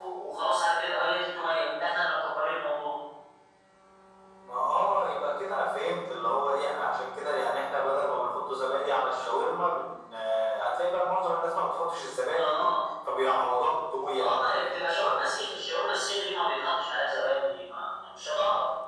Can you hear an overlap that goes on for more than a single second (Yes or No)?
No